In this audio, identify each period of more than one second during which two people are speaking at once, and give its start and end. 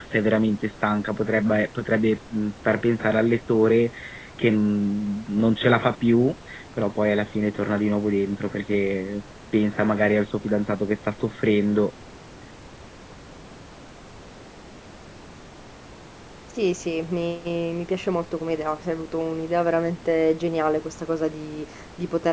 none

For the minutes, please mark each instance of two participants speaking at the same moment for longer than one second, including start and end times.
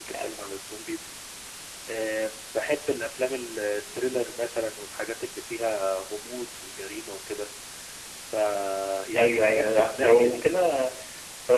9.2-10.4

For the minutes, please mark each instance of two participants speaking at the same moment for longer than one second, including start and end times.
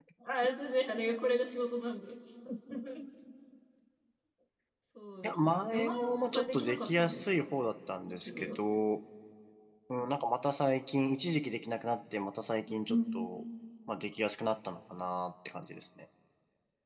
5.2-7.5

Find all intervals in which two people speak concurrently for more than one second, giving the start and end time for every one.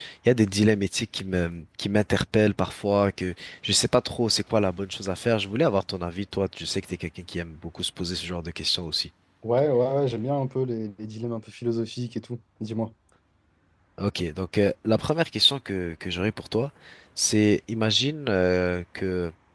none

